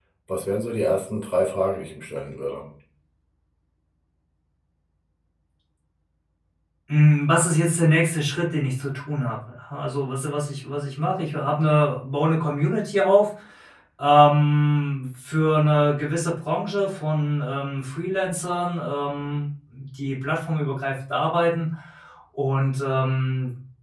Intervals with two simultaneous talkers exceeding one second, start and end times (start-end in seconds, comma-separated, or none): none